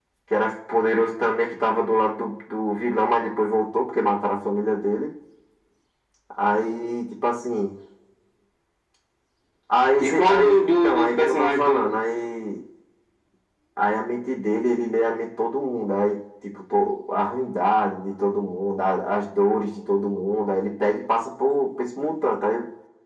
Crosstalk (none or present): present